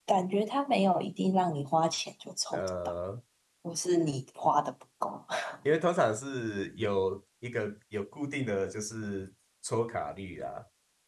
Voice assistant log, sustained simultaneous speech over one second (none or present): none